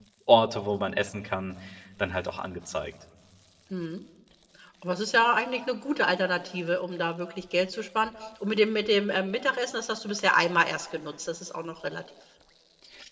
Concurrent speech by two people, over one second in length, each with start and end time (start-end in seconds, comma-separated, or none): none